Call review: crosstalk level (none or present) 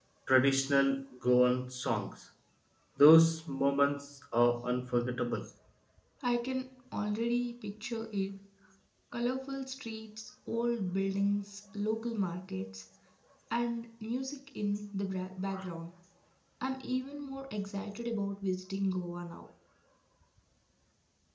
none